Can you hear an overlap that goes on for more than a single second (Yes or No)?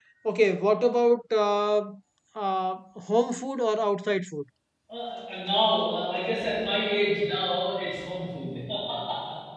No